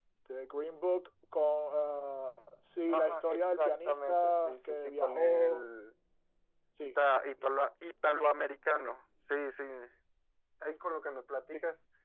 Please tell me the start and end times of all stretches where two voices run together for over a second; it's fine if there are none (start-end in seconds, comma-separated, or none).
2.9-5.7